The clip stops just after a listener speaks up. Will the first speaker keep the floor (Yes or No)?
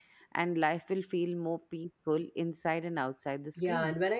No